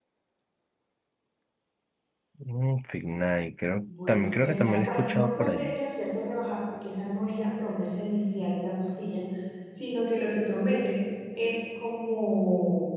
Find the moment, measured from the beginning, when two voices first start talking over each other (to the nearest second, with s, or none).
4 s